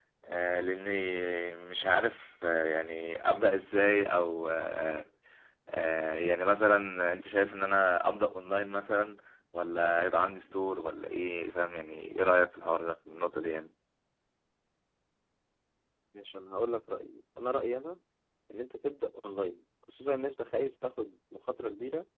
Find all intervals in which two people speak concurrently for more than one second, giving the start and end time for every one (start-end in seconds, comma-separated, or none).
none